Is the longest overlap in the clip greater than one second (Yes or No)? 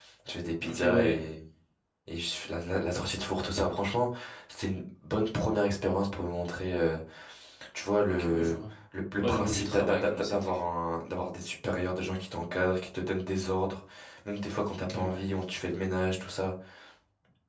Yes